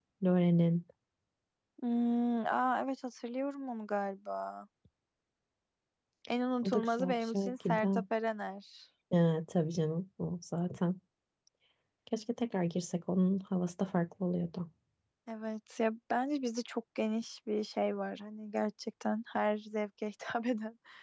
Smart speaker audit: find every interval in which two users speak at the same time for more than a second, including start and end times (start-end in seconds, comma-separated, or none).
6.6-8.0